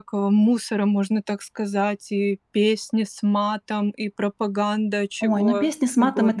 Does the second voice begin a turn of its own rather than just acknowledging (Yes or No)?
Yes